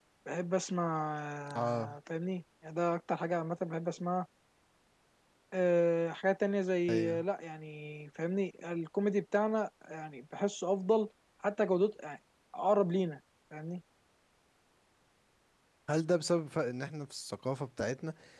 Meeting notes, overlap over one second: none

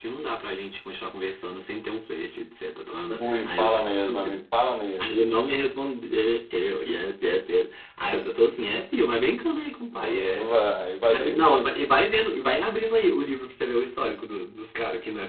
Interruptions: present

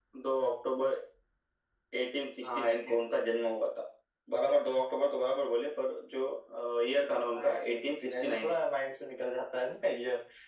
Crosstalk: present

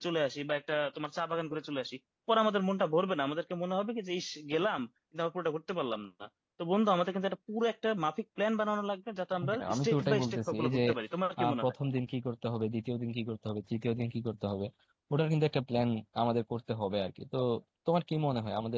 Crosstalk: present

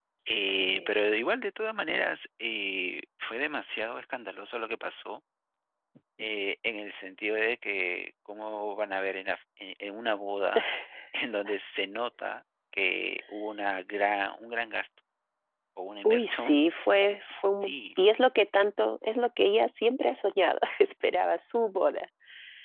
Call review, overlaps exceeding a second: none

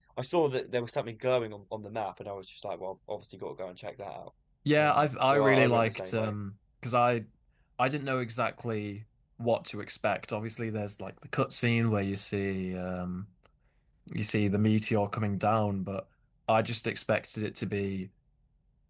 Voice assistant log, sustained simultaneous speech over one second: present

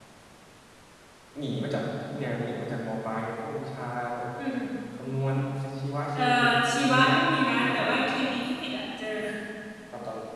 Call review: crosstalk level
present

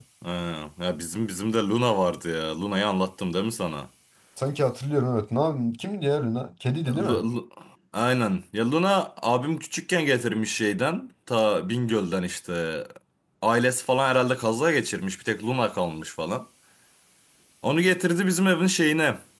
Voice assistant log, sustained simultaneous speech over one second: none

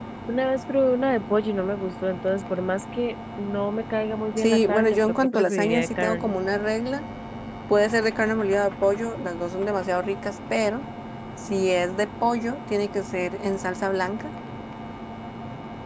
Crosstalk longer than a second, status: present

